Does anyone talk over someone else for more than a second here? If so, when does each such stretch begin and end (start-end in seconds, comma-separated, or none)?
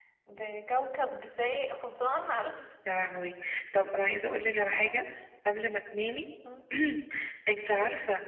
none